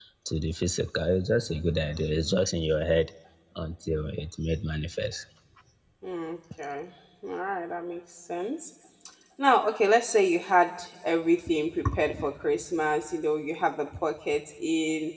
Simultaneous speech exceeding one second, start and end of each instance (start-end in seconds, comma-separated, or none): none